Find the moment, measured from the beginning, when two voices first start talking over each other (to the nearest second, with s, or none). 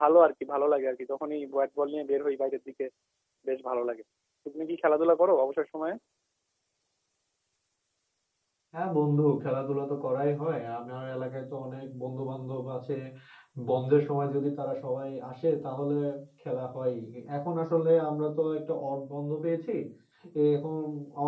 none